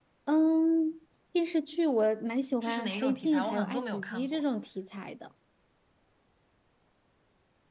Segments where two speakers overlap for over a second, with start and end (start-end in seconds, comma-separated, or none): 2.6-4.4